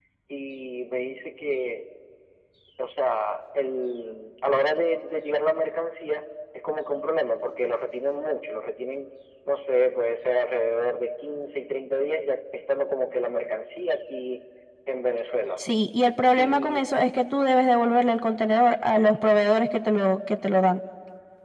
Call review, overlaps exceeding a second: none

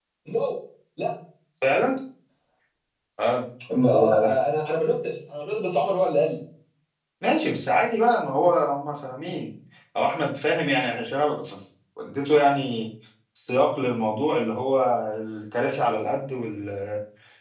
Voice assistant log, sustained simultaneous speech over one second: none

